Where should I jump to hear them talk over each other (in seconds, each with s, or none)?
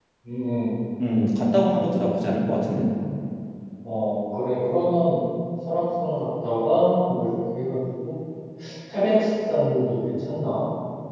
none